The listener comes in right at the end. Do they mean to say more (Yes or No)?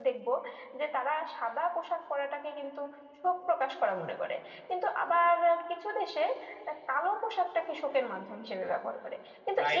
Yes